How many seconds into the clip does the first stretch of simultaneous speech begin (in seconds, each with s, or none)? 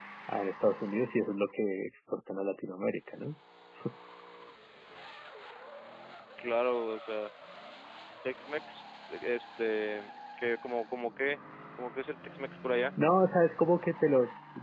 none